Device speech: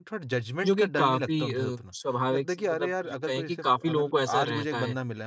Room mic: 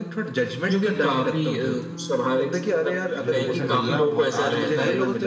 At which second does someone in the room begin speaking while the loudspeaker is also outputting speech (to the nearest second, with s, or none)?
3 s